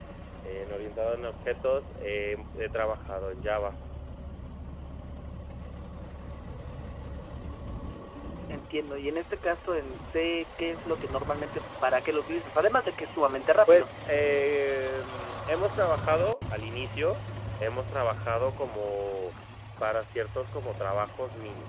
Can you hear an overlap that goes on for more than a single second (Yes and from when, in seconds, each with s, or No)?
No